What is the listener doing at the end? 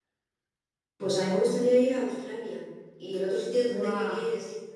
listening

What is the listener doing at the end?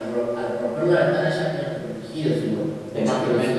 taking over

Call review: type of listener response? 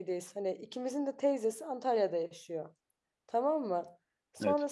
listening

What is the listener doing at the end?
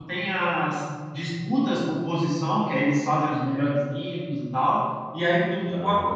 listening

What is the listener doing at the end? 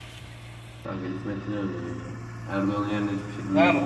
taking over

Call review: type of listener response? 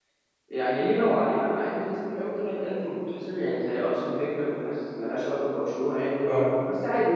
listening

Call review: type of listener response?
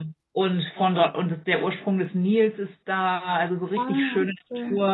listening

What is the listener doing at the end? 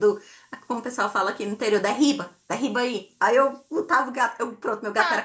taking over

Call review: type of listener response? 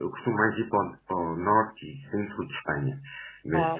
listening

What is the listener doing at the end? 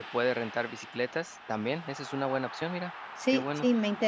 taking over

